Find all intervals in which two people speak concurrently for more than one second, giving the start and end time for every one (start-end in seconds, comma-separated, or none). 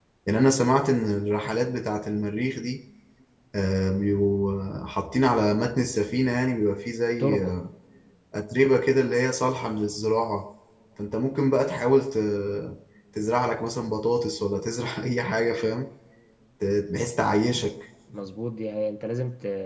none